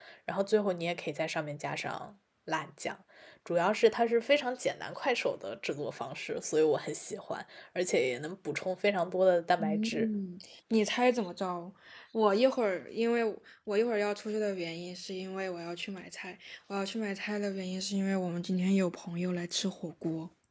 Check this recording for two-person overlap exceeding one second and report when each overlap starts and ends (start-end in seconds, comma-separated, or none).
none